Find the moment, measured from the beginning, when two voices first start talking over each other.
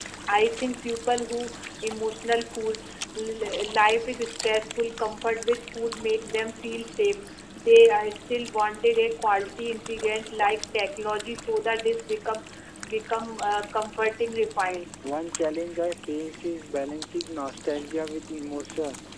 none

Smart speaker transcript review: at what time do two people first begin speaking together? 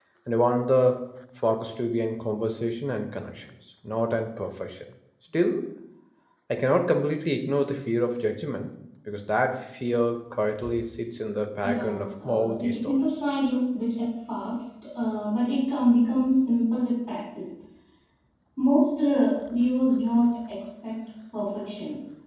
11.6 s

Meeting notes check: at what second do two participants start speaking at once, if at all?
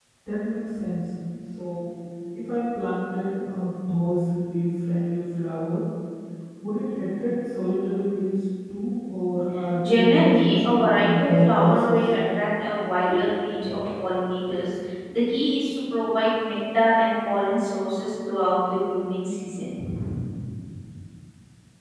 9.8 s

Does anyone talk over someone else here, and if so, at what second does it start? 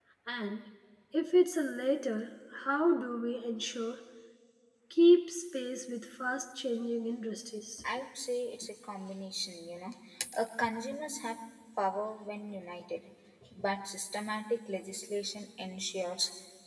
none

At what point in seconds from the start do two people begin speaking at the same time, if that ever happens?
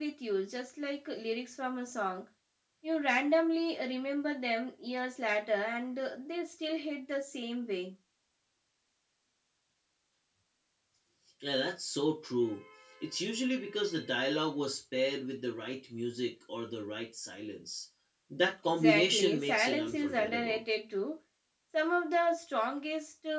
18.6 s

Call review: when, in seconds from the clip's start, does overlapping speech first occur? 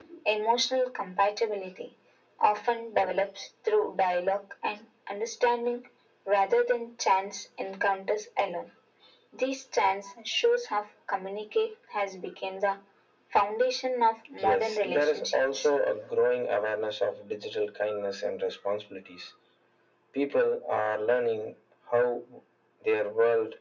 14.4 s

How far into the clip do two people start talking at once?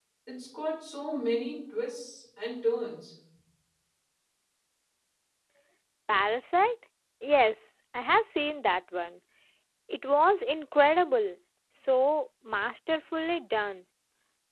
none

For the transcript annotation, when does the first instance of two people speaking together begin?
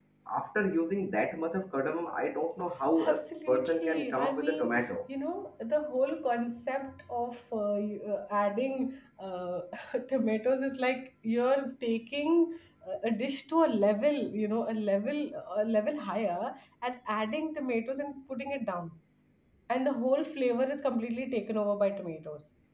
3.0 s

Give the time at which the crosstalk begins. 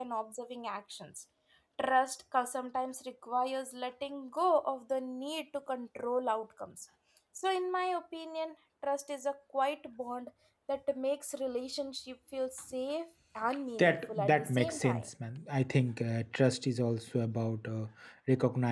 13.8 s

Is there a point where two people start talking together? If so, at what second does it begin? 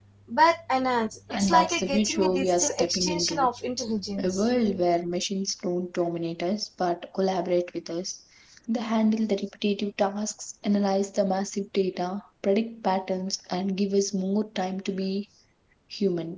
1.3 s

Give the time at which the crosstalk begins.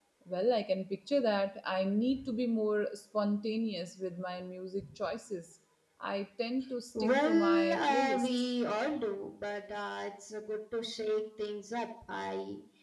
7.0 s

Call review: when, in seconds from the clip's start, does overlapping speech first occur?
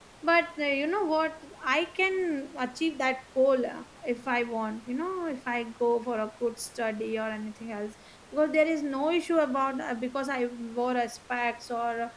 none

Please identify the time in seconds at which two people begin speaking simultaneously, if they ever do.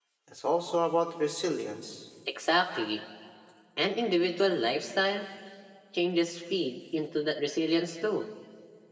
none

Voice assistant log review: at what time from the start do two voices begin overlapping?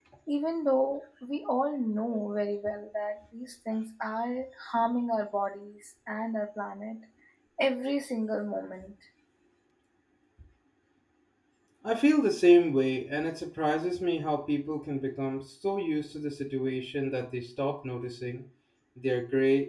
none

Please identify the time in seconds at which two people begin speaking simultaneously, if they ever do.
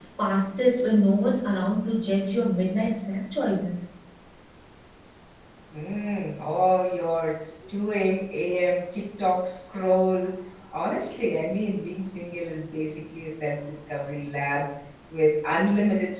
none

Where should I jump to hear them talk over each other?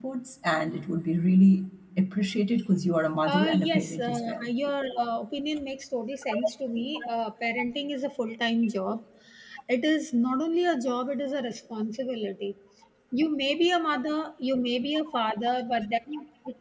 3.3 s

